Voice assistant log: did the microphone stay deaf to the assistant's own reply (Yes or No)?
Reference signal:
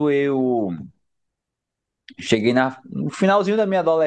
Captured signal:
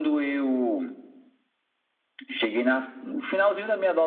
No